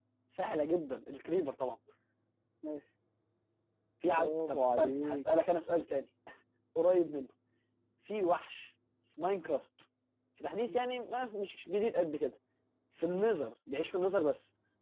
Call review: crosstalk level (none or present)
present